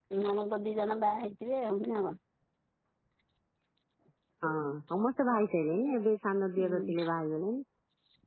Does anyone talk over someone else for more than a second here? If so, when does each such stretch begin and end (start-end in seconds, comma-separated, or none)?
none